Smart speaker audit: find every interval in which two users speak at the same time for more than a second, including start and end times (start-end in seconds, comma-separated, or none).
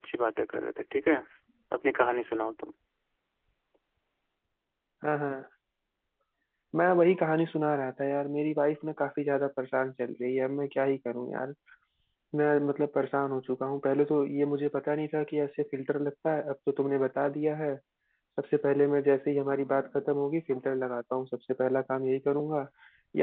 none